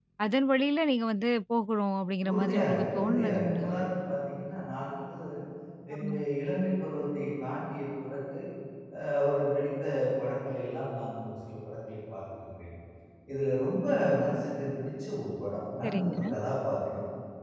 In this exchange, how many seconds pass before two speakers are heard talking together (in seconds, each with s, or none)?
2.3 s